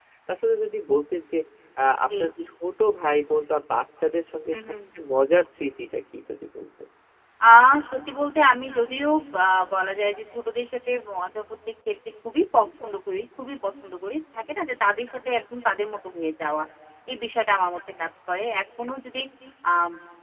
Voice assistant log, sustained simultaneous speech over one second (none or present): none